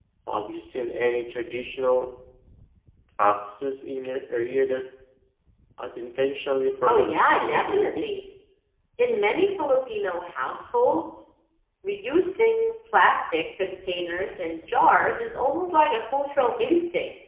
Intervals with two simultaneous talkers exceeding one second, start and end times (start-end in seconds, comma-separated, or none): 6.8-8.1